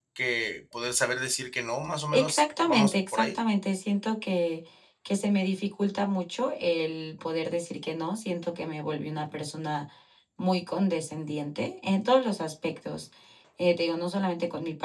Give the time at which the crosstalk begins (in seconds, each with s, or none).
2.1 s